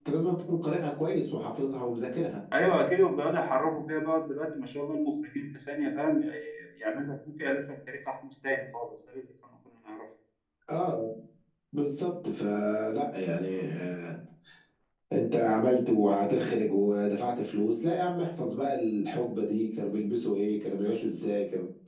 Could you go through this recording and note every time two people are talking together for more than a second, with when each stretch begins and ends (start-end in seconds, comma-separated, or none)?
none